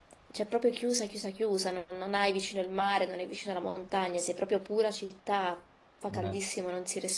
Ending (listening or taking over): listening